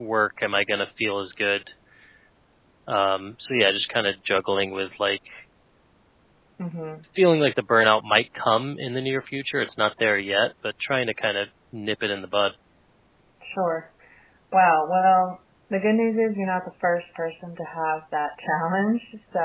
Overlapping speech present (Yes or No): No